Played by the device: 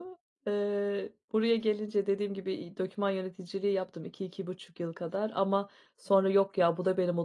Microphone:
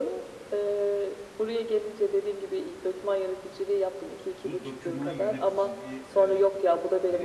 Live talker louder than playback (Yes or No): No